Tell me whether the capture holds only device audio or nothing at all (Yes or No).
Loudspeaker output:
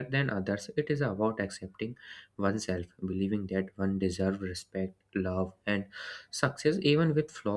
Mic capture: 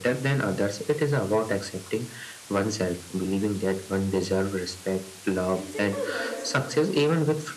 No